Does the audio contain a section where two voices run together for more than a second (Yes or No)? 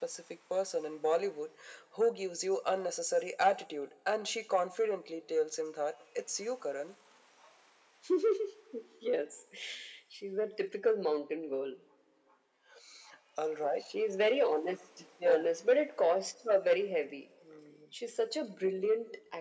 No